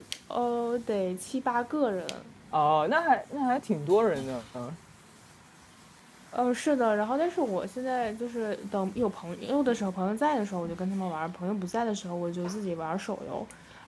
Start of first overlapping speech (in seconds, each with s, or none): none